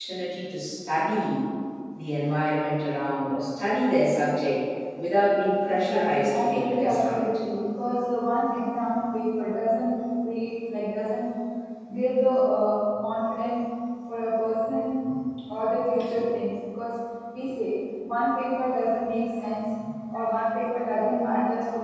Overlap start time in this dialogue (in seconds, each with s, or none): 5.6 s